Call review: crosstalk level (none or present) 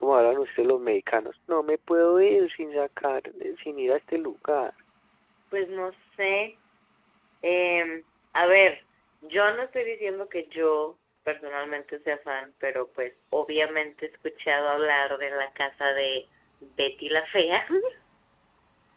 none